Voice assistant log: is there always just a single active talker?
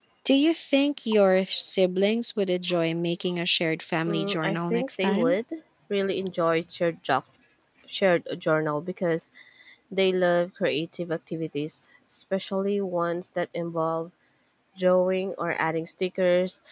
No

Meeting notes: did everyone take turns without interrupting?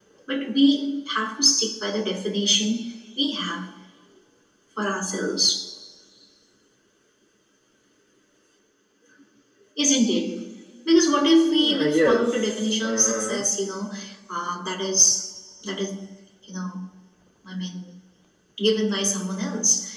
No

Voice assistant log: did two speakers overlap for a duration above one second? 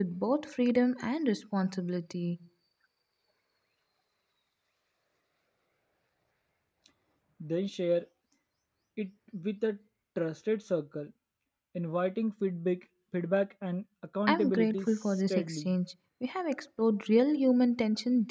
Yes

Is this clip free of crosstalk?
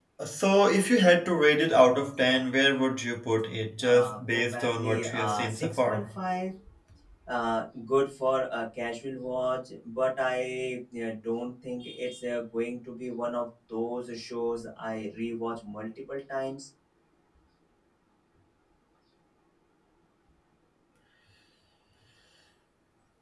No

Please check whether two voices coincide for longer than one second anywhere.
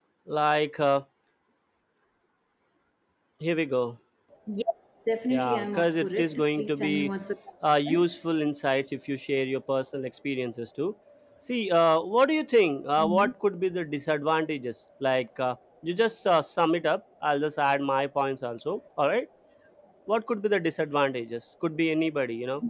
Yes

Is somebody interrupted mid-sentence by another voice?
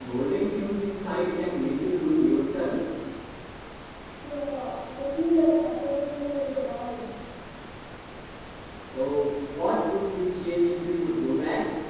No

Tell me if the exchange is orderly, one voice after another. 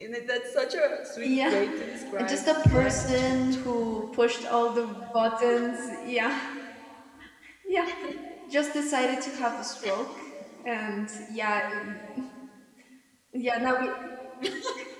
No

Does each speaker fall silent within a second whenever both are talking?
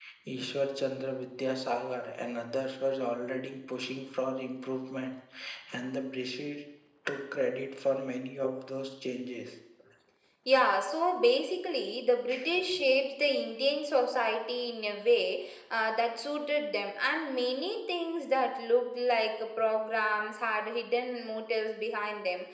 Yes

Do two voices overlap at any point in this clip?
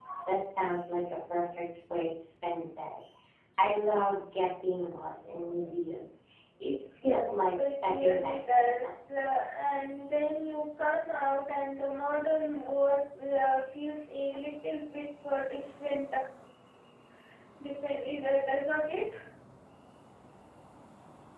Yes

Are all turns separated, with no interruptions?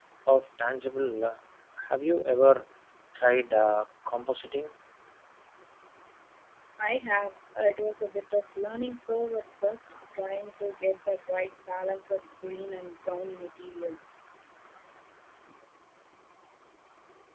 Yes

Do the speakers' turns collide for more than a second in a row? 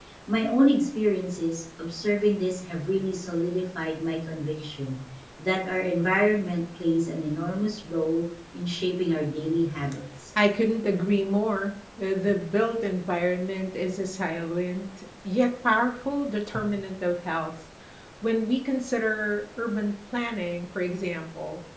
No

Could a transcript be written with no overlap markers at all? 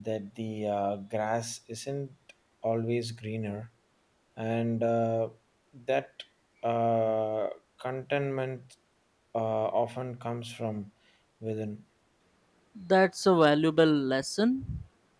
Yes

